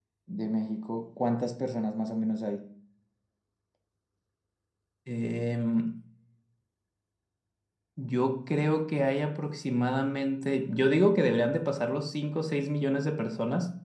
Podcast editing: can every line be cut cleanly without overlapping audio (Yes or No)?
Yes